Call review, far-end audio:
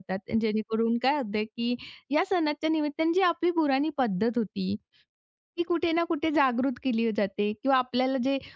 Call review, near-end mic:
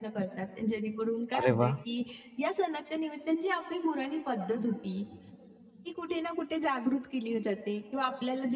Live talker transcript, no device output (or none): अरे वाह!